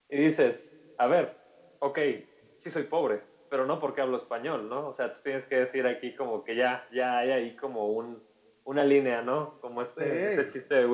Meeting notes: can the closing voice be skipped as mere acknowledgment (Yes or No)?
Yes